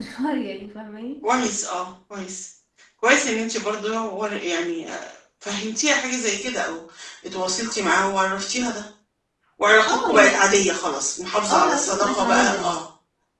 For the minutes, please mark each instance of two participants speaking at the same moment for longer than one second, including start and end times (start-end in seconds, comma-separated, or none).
11.5-12.7